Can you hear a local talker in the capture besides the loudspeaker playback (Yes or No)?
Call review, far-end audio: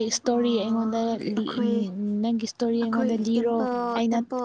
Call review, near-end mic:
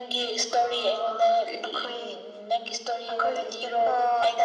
No